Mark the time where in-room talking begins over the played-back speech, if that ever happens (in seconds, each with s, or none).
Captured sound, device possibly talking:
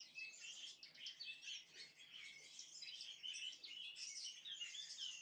none